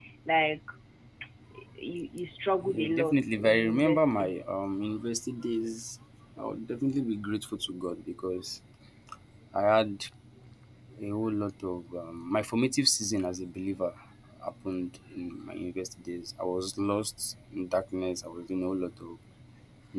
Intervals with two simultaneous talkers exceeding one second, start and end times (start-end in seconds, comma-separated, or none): 2.6-4.3